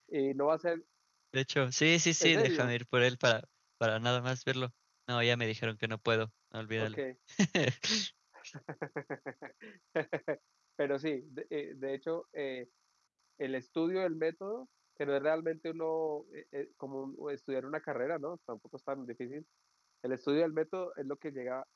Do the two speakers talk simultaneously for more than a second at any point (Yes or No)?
No